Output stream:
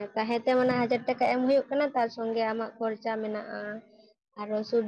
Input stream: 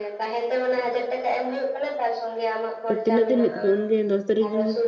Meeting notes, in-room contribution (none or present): present